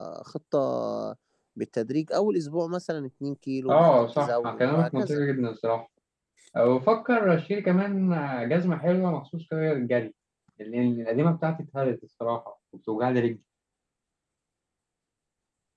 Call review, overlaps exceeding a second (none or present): present